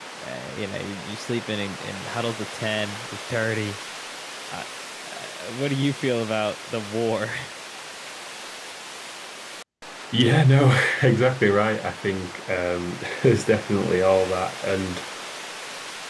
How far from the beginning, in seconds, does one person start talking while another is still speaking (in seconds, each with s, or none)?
none